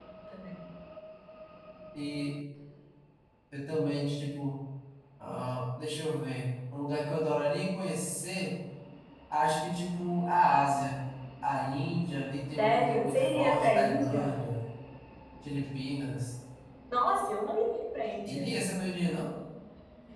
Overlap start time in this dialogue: 12.6 s

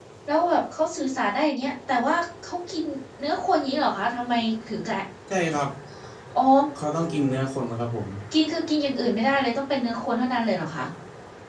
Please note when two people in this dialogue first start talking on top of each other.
none

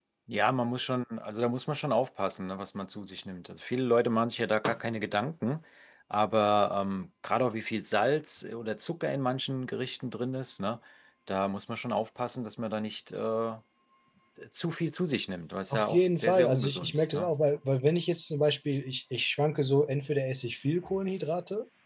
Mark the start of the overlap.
15.7 s

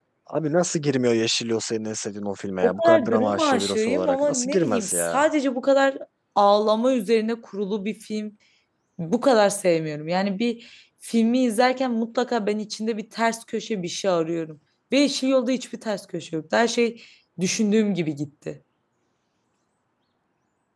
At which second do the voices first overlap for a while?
2.6 s

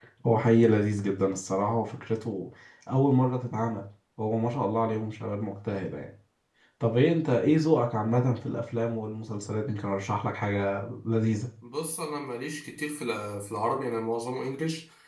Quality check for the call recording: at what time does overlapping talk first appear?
none

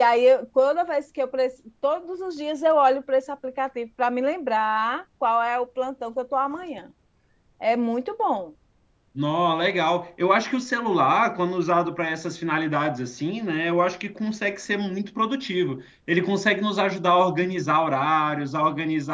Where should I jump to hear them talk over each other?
none

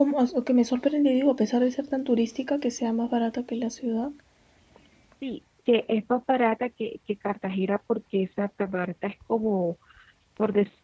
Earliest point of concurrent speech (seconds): none

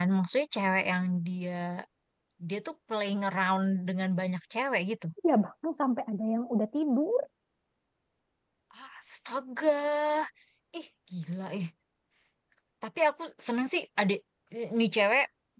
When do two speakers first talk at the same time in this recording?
none

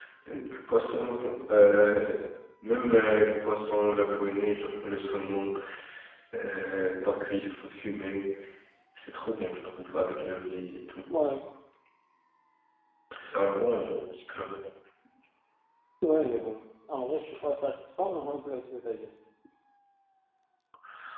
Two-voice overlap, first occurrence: none

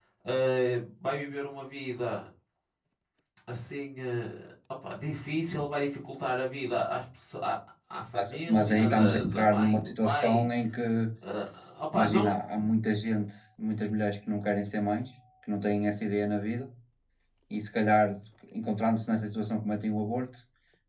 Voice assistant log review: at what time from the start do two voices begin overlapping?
8.1 s

